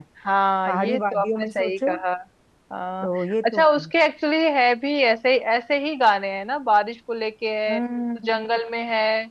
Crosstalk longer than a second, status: present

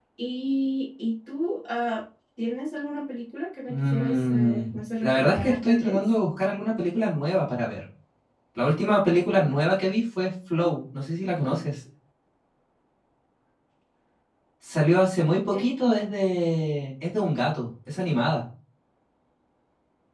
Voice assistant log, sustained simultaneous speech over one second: present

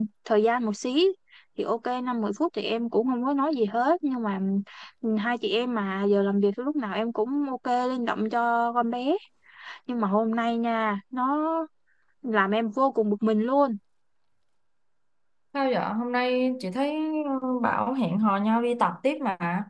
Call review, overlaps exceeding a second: none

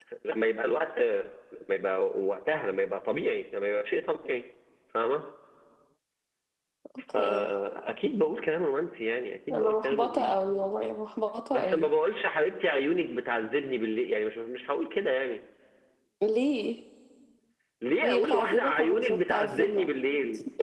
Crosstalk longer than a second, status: present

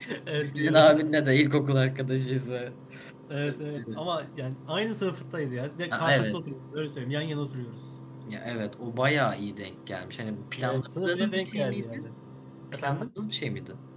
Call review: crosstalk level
present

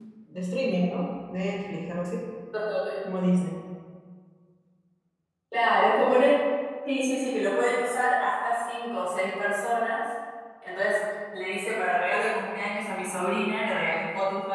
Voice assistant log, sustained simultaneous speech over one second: none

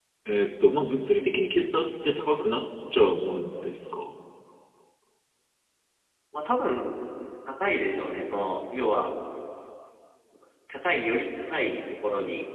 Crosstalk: none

